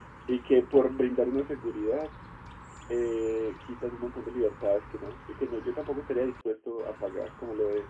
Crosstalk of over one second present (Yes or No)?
No